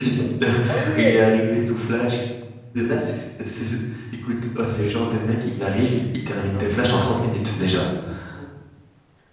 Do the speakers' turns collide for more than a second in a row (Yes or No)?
No